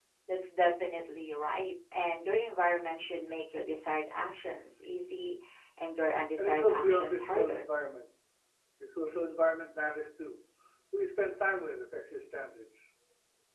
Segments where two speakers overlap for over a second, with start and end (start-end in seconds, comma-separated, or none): 6.4-7.6